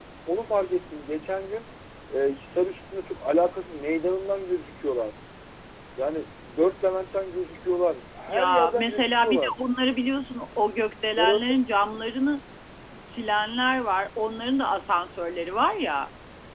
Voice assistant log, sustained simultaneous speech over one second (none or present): present